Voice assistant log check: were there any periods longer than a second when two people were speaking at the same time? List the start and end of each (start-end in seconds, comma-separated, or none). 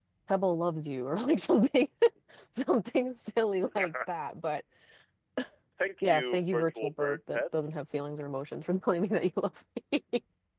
6.0-7.4